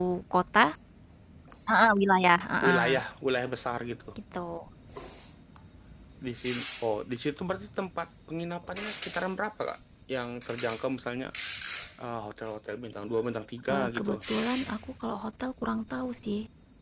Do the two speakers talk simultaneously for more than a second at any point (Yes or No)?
No